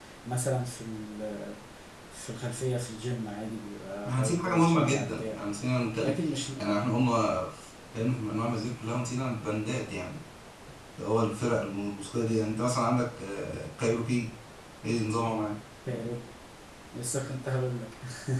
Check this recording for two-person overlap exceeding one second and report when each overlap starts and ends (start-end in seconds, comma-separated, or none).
4.1-5.4